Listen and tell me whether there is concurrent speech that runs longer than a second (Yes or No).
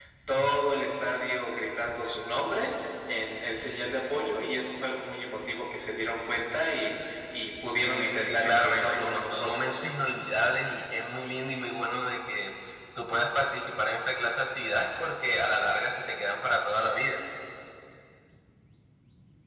Yes